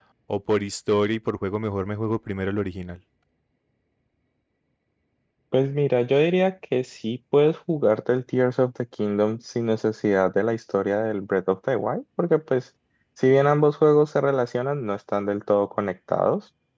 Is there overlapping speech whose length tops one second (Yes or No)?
No